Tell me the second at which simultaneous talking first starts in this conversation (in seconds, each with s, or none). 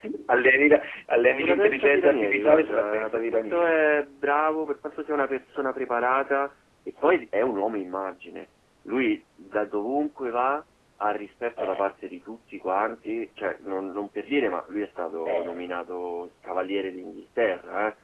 1.4 s